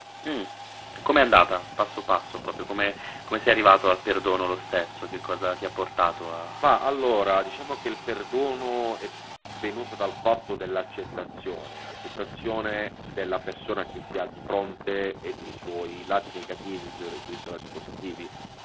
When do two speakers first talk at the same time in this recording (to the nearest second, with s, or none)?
none